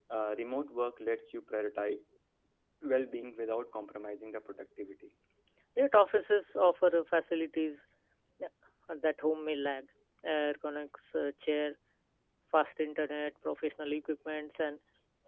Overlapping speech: No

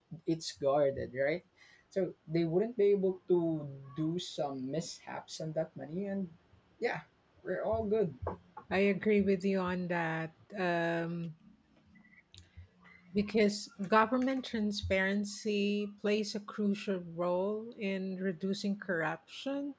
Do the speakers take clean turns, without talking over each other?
Yes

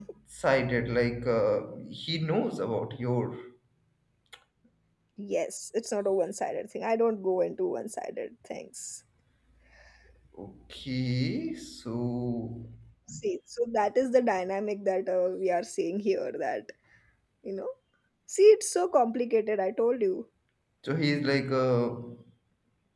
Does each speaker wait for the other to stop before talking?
Yes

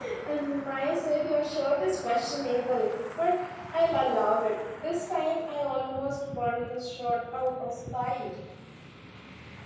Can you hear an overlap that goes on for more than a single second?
No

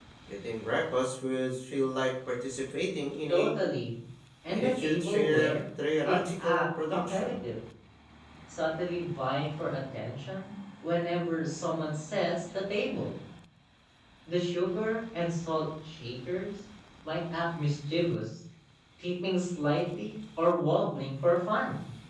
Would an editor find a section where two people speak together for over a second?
Yes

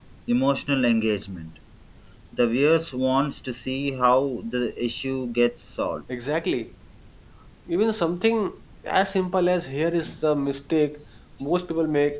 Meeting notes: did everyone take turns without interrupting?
Yes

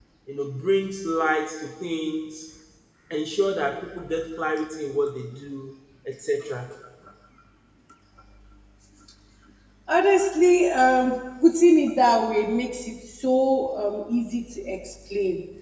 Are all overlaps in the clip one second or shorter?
Yes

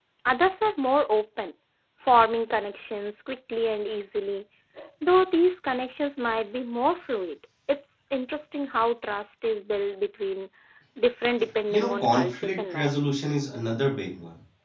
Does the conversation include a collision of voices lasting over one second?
Yes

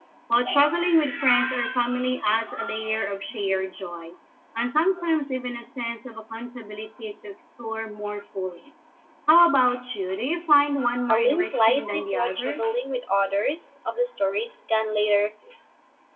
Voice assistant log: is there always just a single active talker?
No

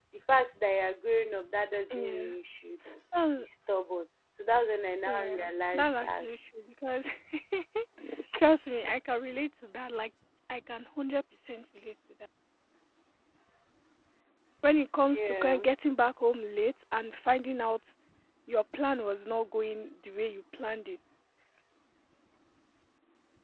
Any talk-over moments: Yes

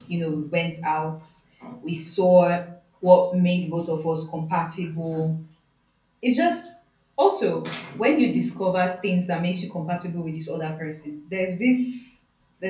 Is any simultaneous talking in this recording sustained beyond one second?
No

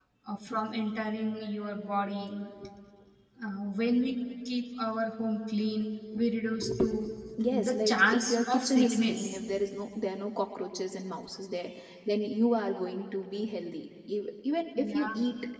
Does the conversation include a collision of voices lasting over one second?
Yes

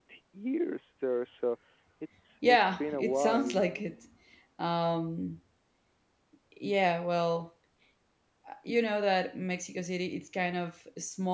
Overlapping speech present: Yes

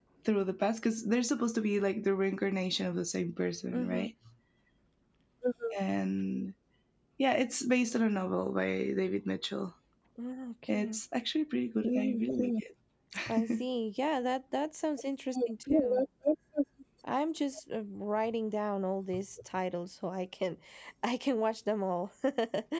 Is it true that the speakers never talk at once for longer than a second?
Yes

